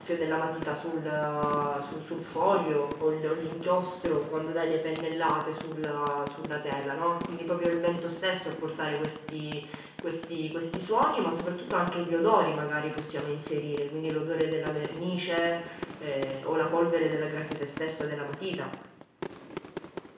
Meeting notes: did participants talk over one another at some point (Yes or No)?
No